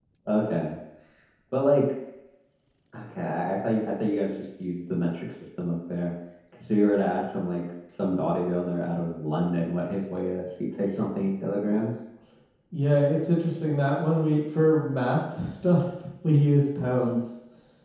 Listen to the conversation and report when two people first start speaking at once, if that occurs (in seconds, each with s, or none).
none